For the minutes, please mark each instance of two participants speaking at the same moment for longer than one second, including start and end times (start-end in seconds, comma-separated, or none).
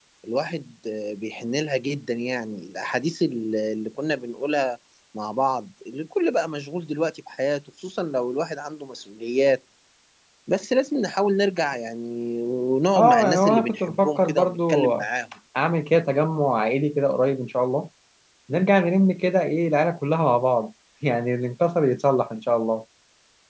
13.0-14.9